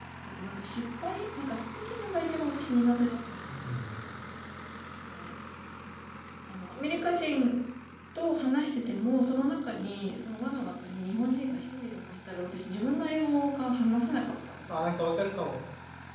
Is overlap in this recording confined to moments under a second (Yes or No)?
Yes